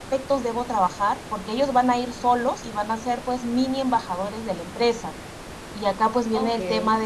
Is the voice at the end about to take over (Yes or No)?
No